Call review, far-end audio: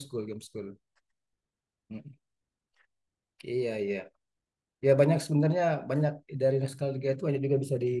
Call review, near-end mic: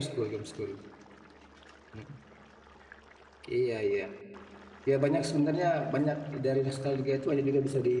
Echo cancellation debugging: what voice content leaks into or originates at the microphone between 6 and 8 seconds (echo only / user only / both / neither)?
echo only